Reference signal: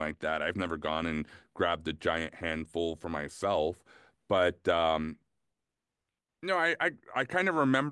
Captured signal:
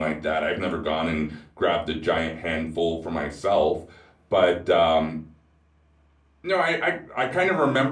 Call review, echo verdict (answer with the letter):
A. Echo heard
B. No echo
A